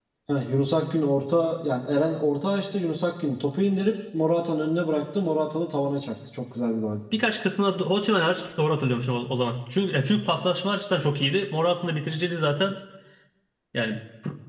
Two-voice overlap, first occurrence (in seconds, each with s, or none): none